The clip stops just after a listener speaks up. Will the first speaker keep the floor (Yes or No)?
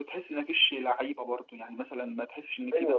No